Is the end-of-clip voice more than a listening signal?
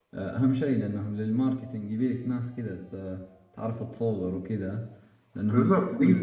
Yes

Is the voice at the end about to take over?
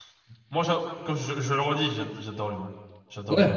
Yes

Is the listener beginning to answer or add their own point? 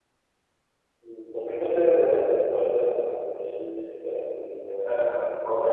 Yes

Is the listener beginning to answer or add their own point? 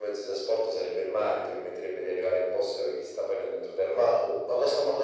Yes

